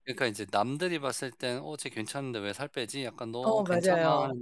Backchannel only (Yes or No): Yes